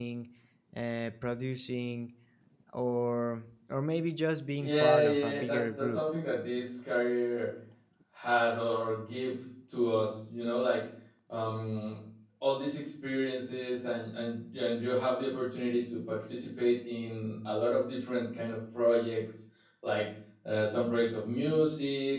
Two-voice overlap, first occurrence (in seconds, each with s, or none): 4.6 s